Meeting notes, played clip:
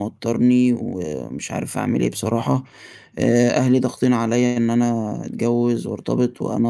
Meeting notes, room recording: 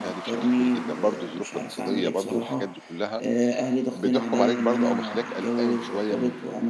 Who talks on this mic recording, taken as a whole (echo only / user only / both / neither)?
both